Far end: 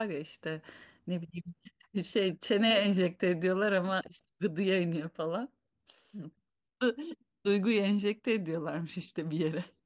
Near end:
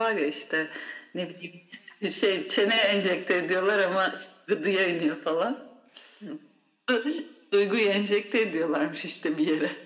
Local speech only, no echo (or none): none